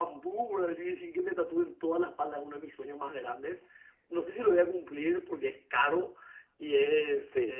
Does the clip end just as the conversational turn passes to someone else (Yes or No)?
No